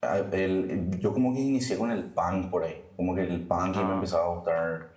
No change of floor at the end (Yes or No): Yes